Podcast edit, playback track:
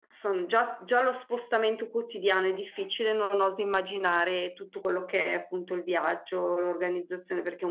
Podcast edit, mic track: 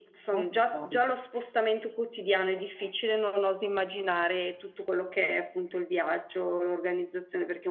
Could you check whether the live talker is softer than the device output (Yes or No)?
Yes